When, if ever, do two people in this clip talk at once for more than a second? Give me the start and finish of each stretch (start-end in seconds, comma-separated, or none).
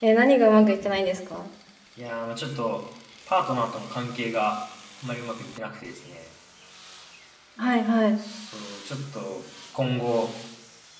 none